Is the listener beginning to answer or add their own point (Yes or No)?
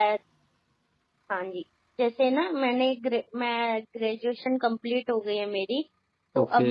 No